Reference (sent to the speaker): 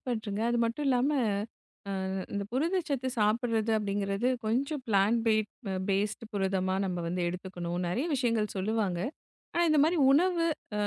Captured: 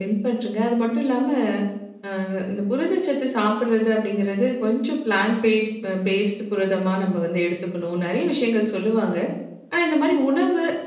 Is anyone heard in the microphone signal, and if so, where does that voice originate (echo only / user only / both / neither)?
echo only